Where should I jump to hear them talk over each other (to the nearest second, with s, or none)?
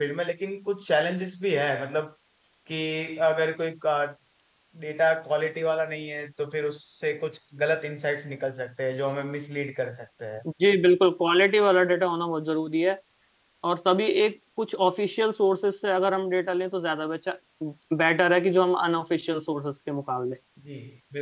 none